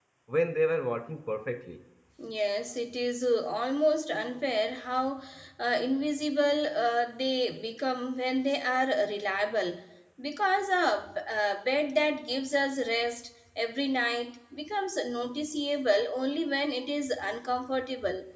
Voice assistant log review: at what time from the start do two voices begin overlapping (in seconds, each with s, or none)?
none